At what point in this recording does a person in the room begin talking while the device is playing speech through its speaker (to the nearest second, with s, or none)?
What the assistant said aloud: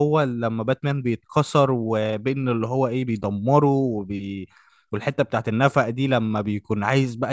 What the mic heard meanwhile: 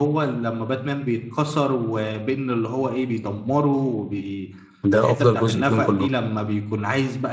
5 s